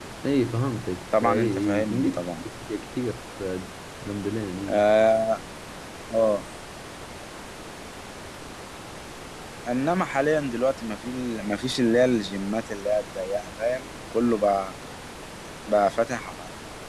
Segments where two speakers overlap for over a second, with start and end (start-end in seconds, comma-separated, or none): 1.2-2.4